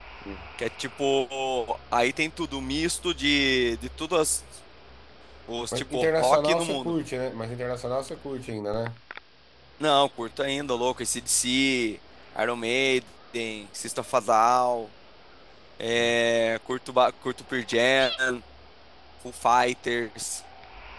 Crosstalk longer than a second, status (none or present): present